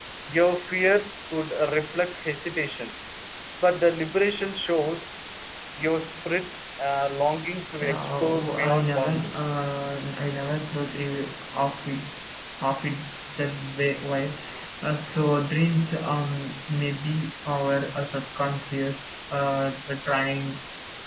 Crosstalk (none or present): present